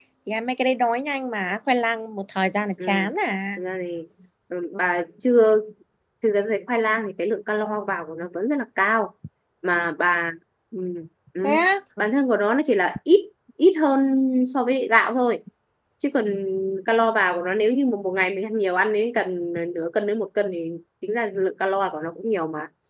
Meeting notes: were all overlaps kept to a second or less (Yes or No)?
Yes